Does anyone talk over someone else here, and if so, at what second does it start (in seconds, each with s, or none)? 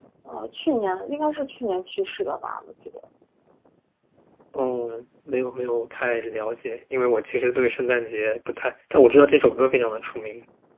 none